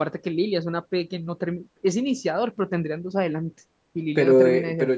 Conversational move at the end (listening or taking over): taking over